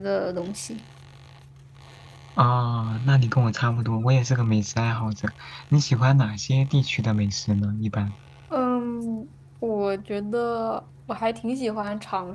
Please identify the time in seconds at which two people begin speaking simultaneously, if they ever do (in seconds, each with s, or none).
none